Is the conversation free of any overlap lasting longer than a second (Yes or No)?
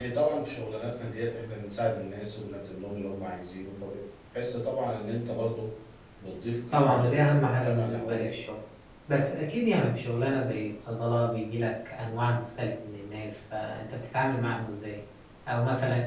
No